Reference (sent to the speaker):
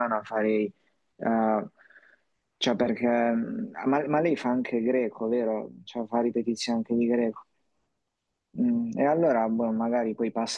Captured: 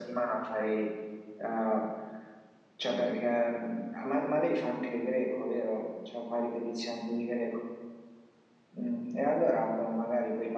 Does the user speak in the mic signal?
No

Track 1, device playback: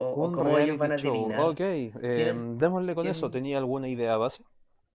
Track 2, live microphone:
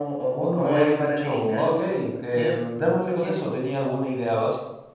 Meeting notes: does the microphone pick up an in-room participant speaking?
No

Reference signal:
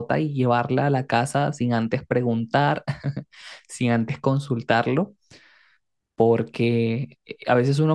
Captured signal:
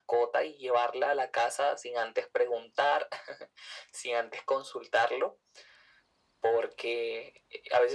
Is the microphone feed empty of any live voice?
Yes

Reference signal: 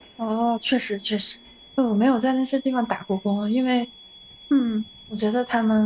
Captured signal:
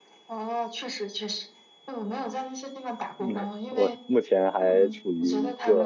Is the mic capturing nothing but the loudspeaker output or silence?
No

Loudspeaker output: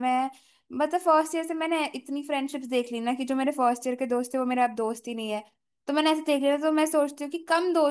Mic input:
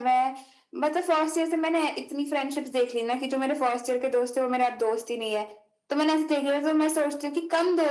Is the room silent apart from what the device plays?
Yes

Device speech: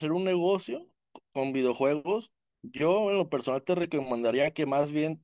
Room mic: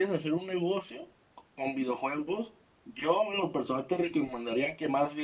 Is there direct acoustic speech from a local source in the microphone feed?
No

